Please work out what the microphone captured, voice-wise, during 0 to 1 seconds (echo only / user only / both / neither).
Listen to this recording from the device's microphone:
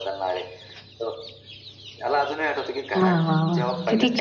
echo only